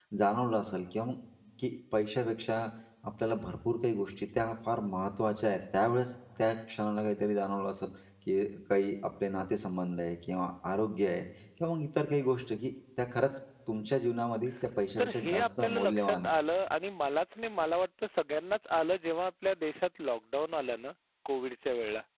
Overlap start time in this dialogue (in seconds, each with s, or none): 15.0 s